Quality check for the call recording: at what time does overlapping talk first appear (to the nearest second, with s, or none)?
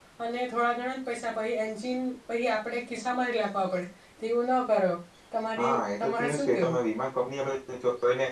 6 s